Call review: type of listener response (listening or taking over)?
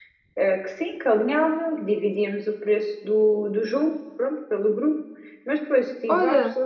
listening